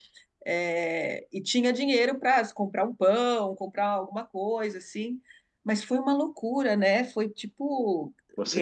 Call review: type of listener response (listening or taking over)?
taking over